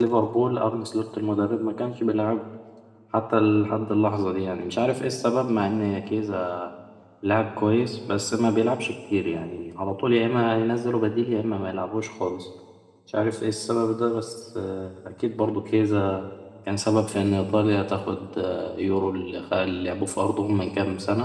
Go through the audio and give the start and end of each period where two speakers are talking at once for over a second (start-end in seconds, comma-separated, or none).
none